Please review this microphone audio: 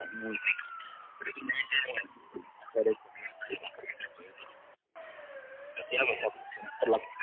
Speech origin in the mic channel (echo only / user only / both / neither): echo only